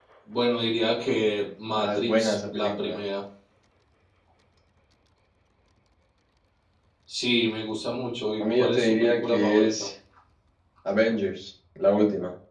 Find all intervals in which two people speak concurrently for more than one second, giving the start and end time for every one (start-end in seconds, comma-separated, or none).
1.8-3.0, 8.4-9.9